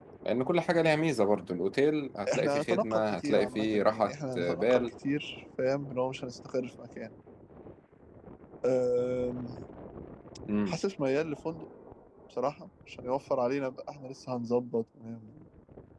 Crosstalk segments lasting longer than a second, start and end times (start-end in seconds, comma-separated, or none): 2.3-4.8